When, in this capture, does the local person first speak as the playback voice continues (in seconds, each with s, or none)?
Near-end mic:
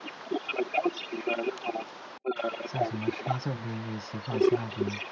2.6 s